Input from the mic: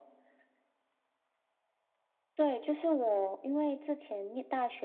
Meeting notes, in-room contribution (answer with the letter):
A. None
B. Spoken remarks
A